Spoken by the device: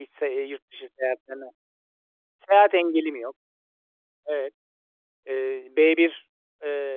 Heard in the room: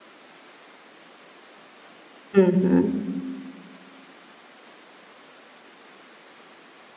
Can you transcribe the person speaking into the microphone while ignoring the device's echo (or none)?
HI hı.